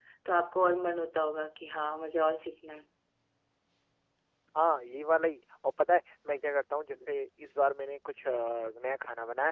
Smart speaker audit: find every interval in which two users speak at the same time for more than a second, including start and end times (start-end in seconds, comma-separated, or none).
none